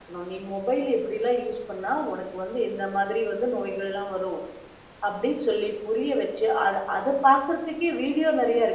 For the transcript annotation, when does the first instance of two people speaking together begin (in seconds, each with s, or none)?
none